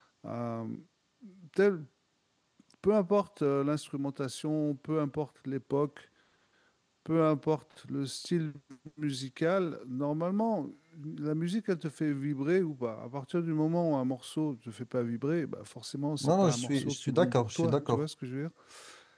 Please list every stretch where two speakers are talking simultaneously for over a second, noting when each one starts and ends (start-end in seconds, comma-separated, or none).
16.3-18.0